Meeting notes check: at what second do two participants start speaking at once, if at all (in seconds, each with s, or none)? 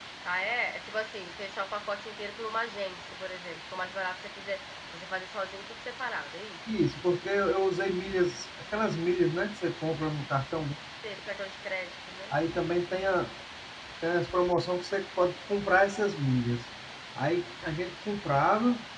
none